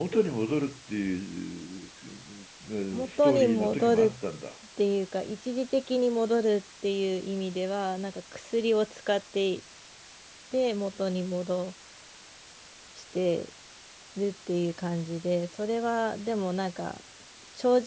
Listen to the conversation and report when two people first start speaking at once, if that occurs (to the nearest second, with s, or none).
3 s